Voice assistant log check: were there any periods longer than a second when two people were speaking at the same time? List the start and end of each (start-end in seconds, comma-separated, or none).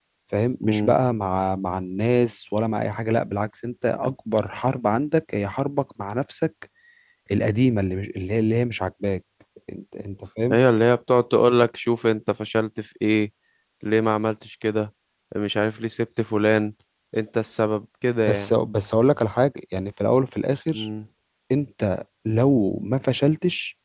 none